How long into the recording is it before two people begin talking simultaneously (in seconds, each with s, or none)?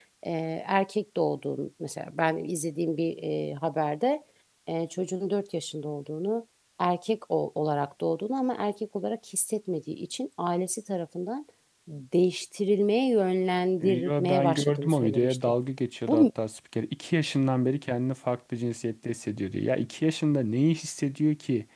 13.8 s